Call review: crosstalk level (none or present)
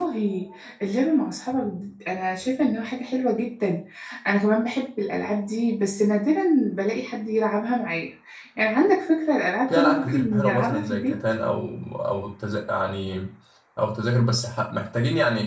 present